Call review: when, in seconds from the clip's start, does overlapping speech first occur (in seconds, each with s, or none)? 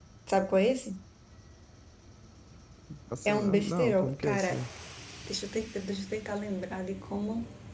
3.2 s